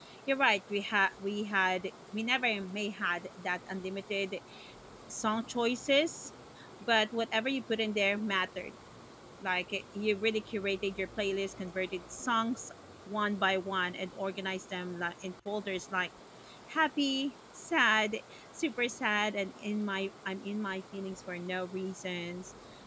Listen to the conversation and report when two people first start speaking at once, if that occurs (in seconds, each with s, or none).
none